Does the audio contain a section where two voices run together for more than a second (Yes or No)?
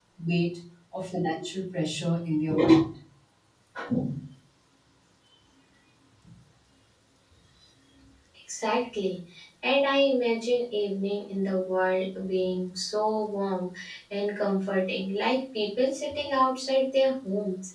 No